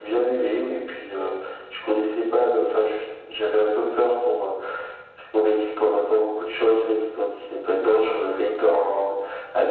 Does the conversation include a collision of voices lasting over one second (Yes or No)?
No